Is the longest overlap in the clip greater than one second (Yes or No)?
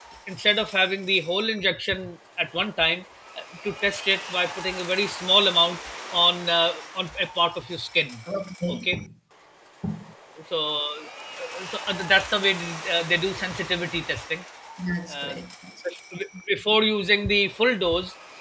No